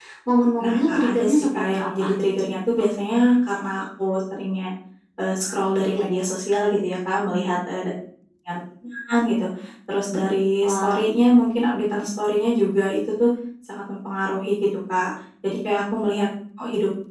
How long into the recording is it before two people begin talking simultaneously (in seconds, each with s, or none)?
0.6 s